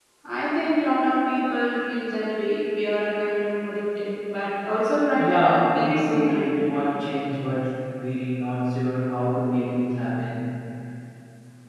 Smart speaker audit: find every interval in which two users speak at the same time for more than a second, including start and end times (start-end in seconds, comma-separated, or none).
5.2-6.7